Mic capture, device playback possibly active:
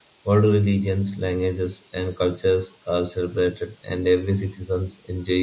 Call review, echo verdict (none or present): none